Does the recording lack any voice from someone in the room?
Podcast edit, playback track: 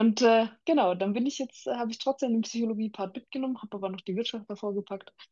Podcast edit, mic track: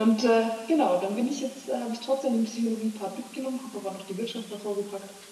Yes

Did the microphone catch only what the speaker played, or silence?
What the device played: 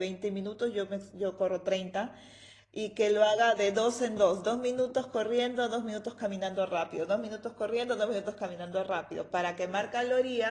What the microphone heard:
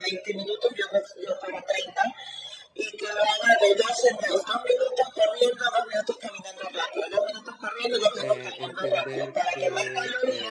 No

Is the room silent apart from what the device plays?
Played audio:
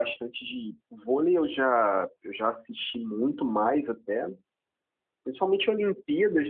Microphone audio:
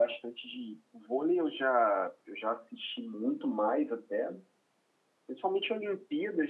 Yes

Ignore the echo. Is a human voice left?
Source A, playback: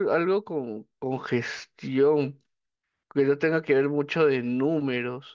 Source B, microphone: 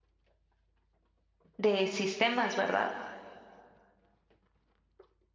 Yes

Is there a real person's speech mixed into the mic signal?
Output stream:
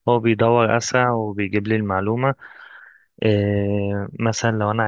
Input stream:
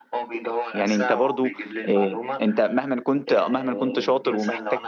Yes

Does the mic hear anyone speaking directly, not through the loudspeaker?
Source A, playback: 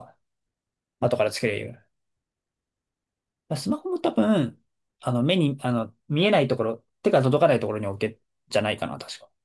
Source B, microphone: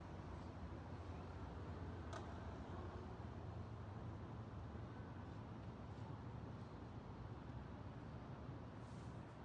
No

